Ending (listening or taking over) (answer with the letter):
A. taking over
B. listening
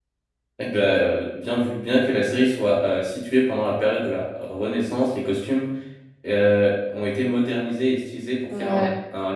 B